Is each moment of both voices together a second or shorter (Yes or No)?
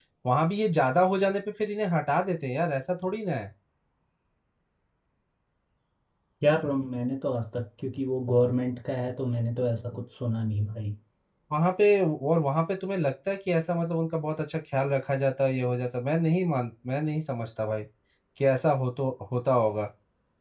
Yes